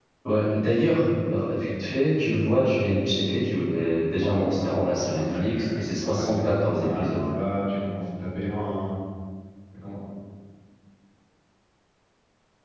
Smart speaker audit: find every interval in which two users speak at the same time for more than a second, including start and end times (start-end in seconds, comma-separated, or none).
4.2-7.2